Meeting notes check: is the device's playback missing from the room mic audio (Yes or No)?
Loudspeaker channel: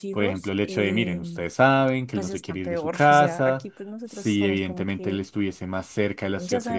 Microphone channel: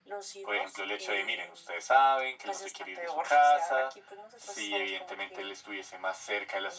No